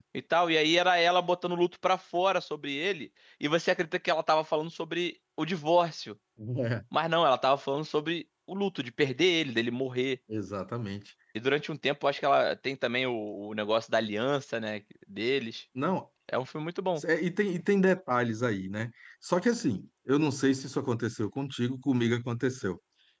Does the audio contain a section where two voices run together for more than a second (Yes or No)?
No